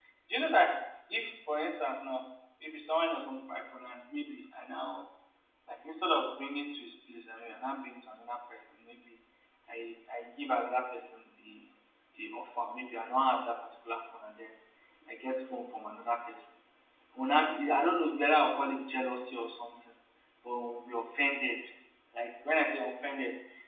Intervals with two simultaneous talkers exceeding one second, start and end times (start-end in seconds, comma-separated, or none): none